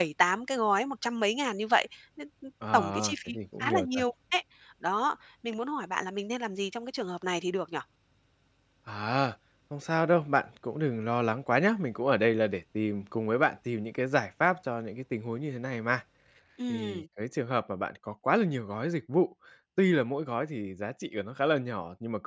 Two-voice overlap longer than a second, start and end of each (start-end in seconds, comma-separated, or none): 2.7-4.0